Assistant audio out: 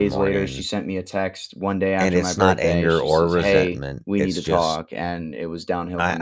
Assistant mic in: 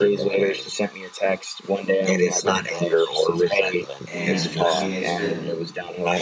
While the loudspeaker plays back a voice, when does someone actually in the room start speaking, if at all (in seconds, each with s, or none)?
4.1 s